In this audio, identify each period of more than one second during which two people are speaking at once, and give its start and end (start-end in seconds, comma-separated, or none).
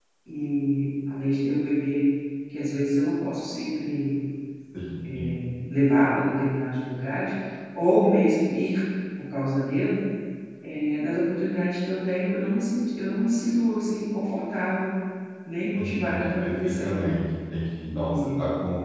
15.8-17.1